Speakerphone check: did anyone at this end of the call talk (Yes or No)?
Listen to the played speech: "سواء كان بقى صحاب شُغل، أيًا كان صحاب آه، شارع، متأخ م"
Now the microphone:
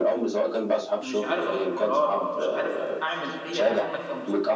Yes